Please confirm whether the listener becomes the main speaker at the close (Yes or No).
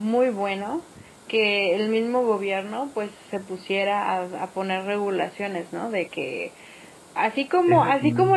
No